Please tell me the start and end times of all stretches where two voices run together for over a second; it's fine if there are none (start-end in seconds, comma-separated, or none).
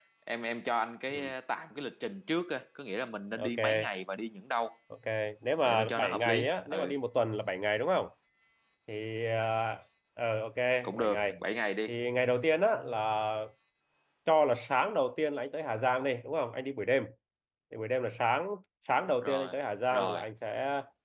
5.6-7.0